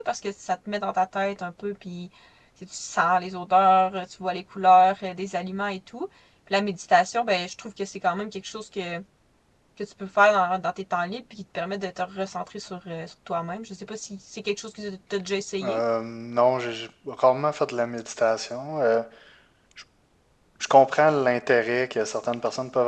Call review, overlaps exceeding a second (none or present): none